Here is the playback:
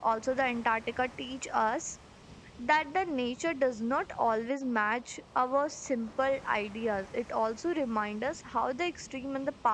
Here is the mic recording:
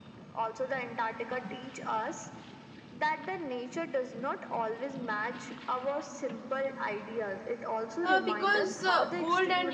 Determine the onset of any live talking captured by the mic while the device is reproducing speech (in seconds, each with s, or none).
8.0 s